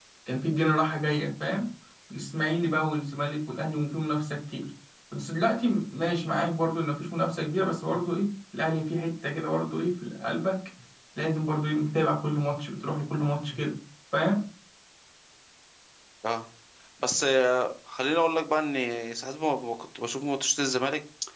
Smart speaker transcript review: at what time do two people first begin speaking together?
none

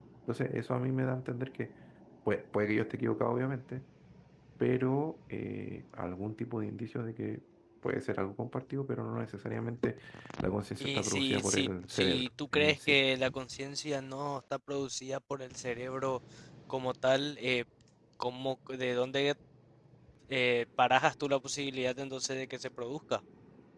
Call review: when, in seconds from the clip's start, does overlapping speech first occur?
10.8 s

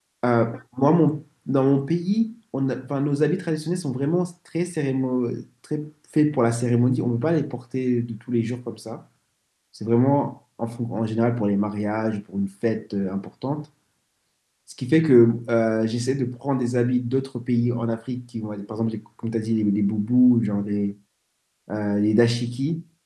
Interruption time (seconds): none

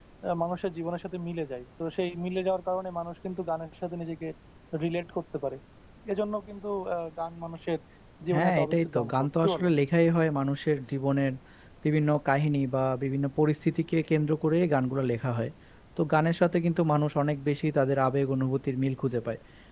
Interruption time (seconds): 8.3 s

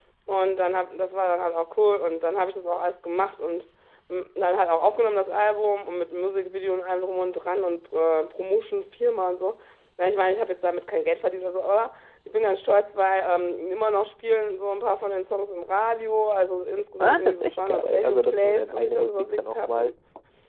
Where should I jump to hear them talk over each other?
17.0 s

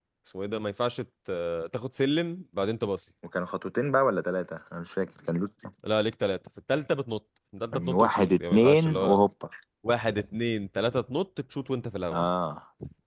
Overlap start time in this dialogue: 7.7 s

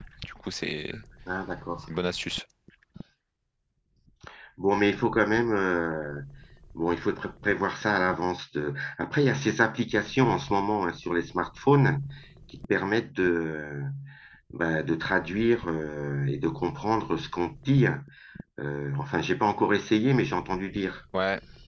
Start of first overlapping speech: none

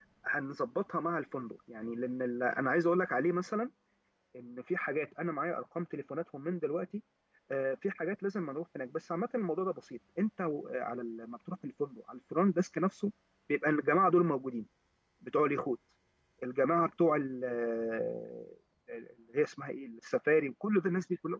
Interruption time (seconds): none

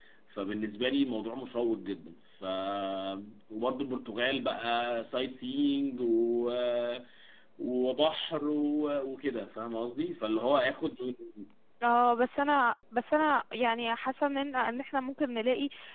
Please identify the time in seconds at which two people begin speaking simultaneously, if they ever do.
none

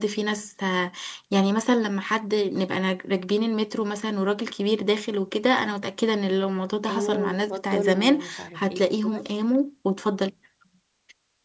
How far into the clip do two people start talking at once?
6.9 s

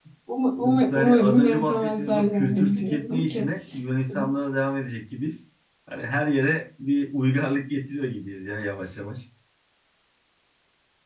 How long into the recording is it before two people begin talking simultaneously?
0.6 s

